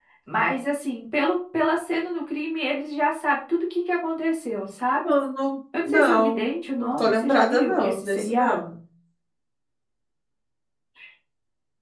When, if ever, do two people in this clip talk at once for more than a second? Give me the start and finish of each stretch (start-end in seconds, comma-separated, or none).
5.8-8.6